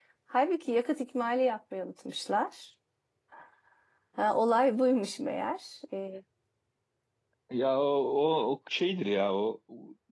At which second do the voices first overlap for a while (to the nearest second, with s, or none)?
none